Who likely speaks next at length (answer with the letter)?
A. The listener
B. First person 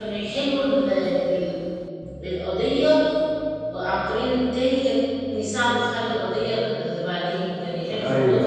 A